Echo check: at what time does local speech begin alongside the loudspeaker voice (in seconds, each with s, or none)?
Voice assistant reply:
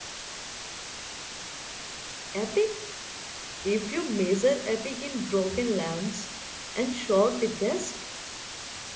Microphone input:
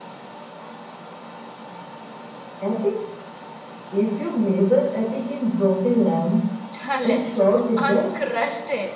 6.7 s